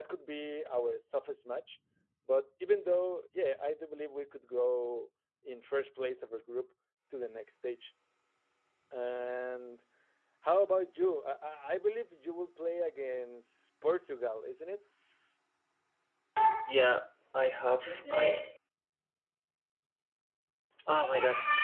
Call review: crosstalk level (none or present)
none